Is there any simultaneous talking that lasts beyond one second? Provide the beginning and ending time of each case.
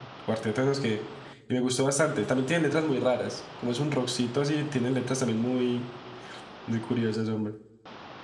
none

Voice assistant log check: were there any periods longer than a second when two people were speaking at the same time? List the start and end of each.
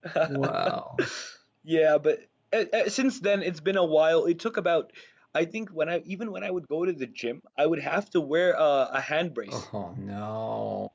none

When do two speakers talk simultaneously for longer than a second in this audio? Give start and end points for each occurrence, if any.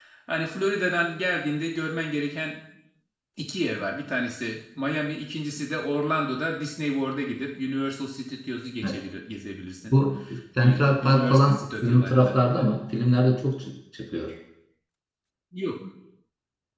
10.6-12.6

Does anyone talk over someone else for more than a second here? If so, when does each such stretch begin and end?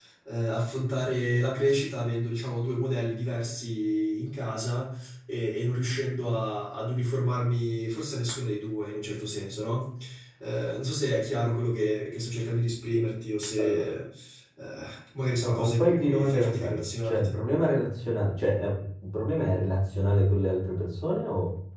15.4-17.4

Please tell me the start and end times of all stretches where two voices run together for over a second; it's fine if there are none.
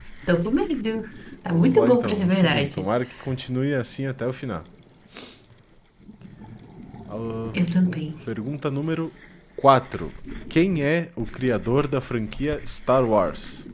1.5-2.9

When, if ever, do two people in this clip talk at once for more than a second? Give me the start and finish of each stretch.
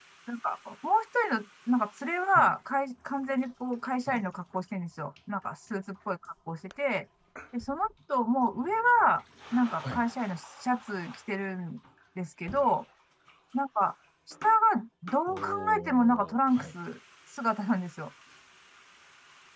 15.3-16.6

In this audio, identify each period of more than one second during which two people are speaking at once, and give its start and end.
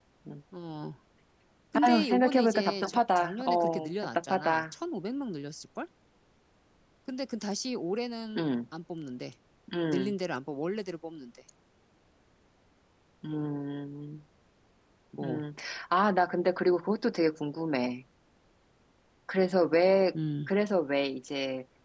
1.8-4.6

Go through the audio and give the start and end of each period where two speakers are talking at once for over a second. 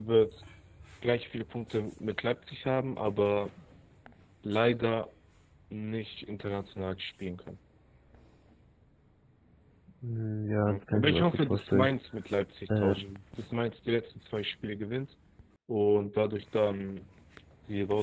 10.7-11.9

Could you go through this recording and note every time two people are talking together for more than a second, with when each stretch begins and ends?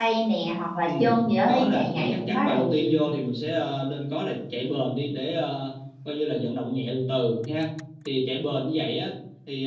1.5-3.0

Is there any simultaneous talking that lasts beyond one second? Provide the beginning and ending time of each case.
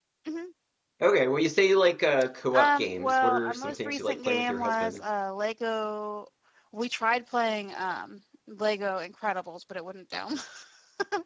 2.5-5.0

